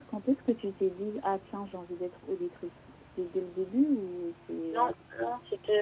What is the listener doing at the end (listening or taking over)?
taking over